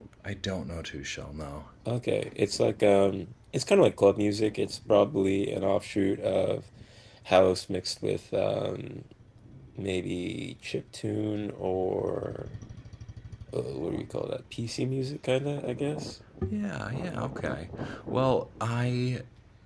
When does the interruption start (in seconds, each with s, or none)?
none